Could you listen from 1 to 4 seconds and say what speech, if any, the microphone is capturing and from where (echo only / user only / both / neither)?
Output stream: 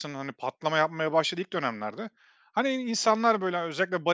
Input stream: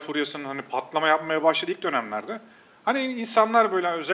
echo only